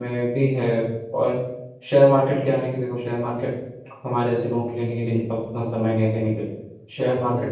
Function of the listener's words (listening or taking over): listening